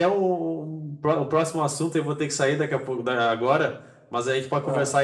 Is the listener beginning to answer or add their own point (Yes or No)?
No